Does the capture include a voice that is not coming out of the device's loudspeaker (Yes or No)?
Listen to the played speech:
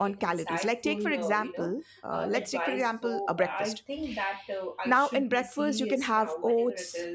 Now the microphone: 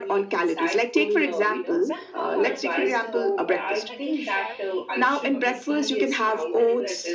Yes